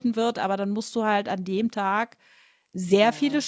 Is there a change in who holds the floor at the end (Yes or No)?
No